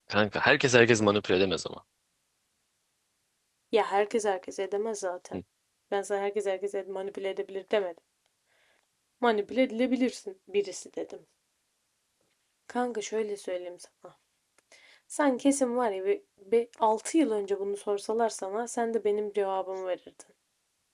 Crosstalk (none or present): none